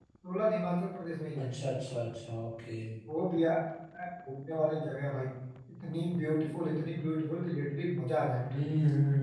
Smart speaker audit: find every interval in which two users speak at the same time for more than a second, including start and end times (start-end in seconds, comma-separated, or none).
none